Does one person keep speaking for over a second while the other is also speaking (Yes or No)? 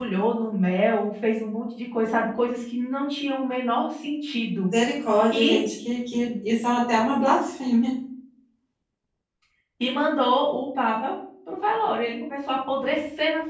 No